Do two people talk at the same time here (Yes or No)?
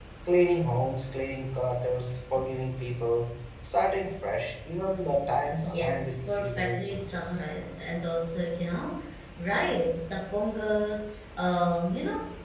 Yes